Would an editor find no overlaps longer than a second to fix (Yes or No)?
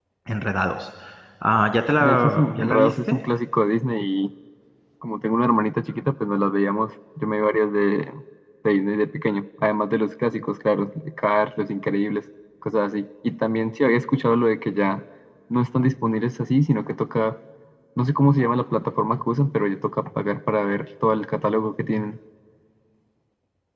No